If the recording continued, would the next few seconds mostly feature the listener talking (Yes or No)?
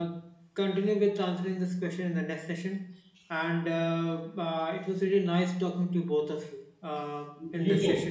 No